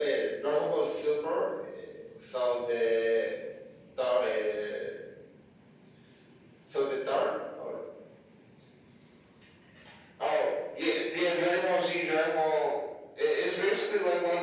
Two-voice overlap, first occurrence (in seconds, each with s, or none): none